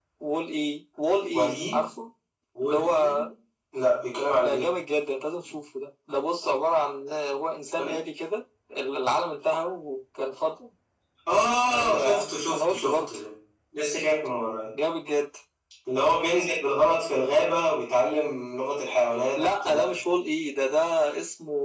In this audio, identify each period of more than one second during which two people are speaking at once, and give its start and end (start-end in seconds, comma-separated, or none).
11.7-13.2